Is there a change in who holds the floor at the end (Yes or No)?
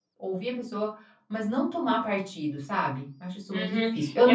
Yes